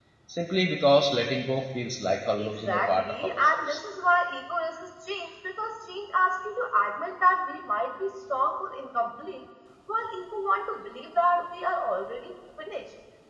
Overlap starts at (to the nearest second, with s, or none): 2 s